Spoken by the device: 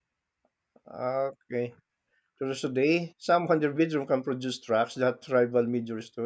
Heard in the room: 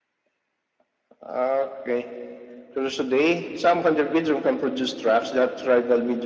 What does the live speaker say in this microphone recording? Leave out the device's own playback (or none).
none